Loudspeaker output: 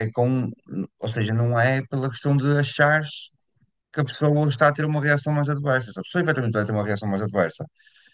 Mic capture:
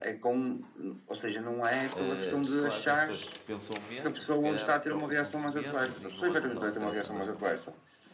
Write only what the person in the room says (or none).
Eh, claro que as pessoas que pensam menos, se calhar preocupam-se menos e não andam tão estressadas com isso.